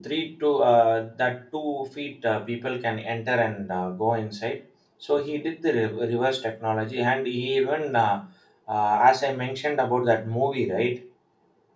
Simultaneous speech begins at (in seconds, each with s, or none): none